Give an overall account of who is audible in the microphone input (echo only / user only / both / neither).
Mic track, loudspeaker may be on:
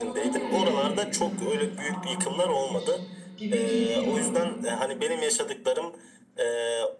both